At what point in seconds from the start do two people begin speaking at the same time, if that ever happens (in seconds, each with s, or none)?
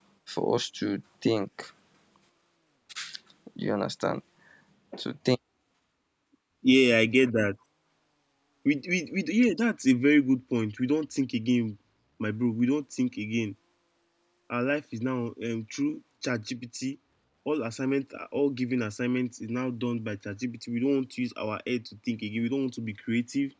none